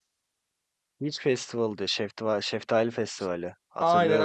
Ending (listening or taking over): taking over